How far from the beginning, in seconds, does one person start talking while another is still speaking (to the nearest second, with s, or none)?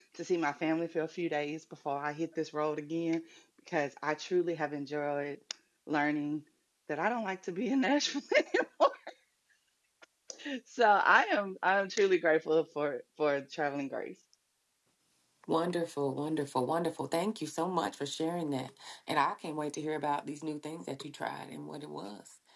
none